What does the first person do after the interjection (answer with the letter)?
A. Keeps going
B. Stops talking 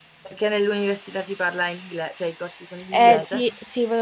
B